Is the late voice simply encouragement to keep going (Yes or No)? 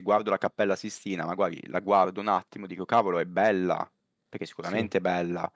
Yes